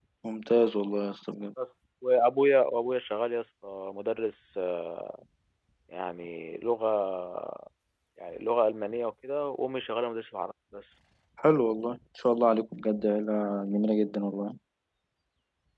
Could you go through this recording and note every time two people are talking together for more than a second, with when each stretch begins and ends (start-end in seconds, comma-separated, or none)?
none